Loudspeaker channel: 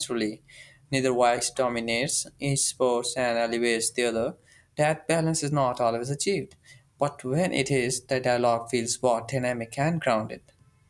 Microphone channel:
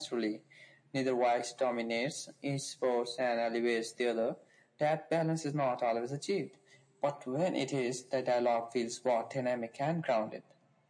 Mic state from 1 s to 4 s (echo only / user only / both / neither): echo only